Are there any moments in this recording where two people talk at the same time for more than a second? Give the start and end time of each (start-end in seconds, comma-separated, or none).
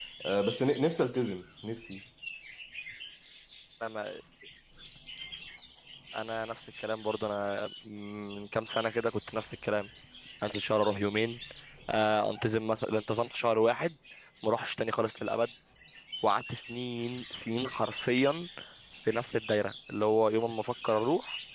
none